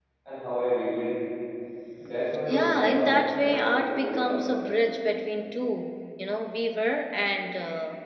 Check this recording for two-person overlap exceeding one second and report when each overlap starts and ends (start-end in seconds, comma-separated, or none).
2.5-4.4